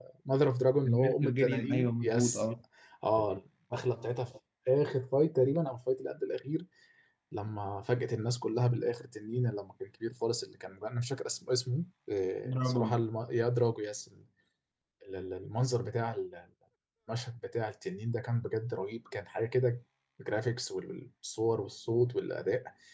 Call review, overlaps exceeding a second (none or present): present